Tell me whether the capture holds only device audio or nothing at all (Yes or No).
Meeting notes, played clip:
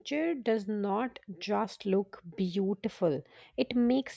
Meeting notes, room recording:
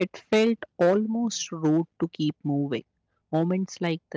No